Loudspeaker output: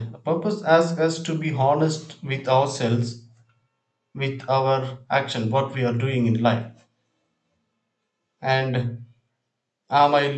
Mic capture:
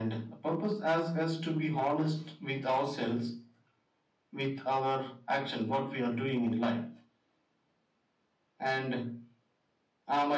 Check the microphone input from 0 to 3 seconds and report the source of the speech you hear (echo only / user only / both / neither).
echo only